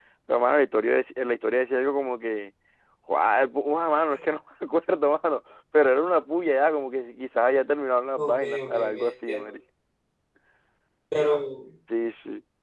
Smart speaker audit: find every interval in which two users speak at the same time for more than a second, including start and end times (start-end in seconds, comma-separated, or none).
8.2-9.4